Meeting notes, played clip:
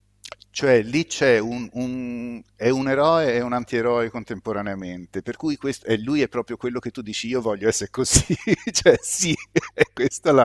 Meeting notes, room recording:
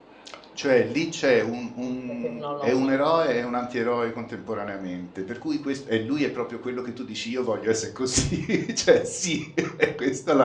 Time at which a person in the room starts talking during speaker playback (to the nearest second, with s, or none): 2 s